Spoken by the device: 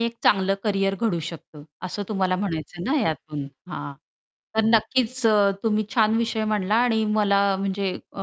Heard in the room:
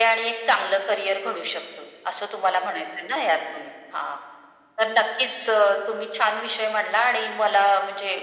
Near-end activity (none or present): none